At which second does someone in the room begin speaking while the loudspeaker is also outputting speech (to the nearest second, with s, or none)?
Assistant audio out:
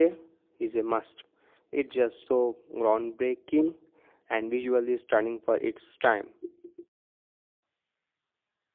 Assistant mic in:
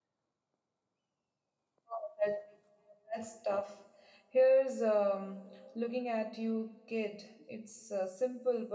2 s